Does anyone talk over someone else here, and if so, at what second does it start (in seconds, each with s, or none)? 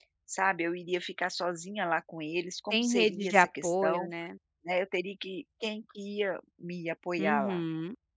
2.7 s